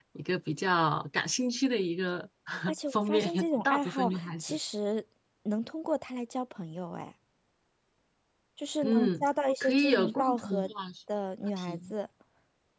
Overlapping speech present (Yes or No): Yes